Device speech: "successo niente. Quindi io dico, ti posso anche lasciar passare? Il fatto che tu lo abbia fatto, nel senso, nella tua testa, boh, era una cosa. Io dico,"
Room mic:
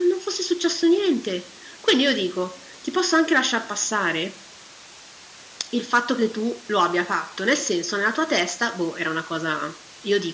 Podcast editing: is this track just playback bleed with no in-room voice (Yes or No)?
Yes